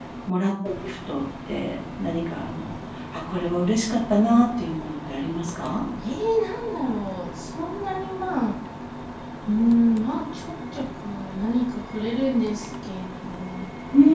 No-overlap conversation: Yes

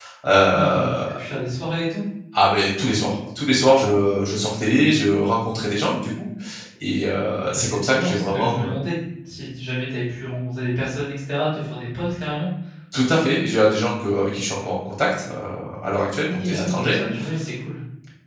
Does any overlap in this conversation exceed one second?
Yes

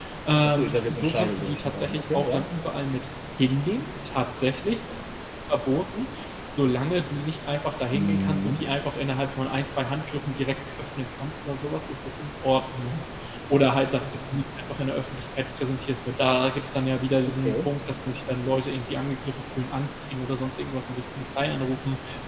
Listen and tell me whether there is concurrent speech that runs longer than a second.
Yes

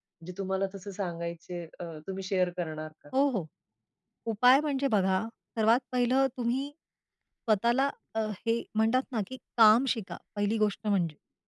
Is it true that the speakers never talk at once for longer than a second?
Yes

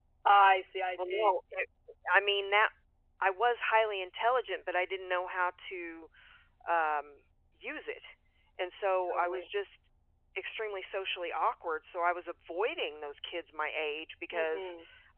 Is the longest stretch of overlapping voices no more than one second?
Yes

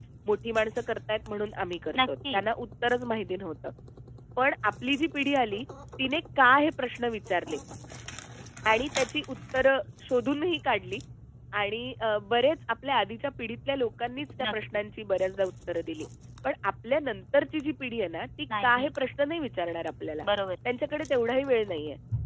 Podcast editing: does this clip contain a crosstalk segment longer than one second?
No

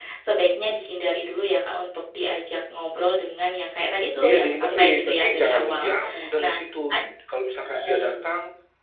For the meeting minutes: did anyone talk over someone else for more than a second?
Yes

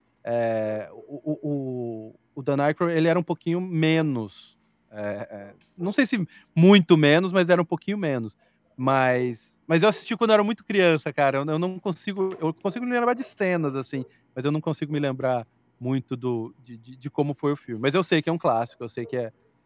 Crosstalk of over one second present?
No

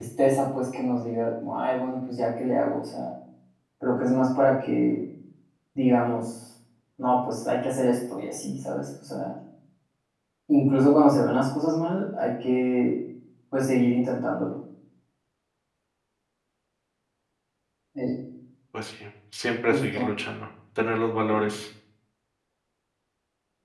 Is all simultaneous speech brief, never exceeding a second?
Yes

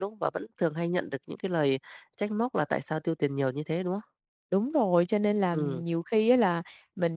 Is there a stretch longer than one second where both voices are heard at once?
No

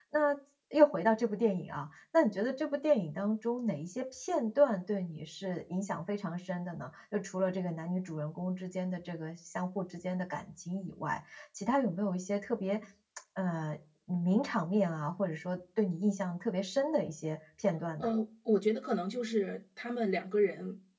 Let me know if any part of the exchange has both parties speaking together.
No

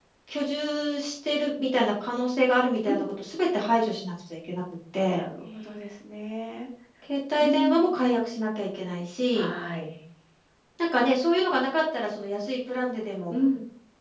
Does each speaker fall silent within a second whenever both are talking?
Yes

